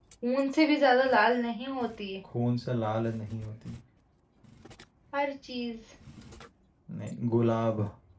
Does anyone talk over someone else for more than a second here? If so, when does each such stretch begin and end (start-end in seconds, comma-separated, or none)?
none